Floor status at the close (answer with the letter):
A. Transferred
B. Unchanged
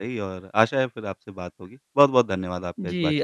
A